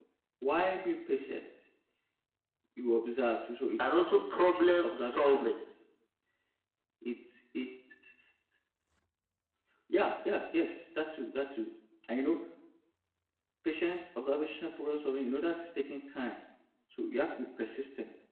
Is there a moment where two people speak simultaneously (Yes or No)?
Yes